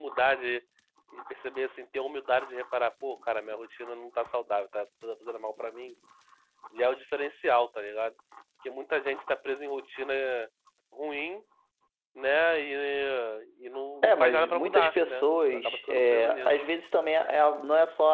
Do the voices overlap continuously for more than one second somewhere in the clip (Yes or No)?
Yes